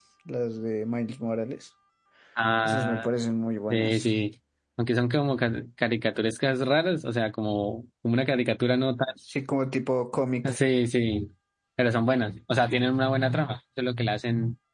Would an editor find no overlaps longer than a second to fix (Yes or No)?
Yes